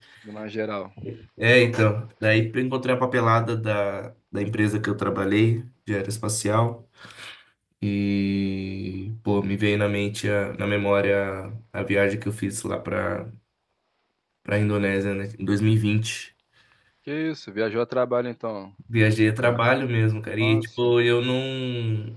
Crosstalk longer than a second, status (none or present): none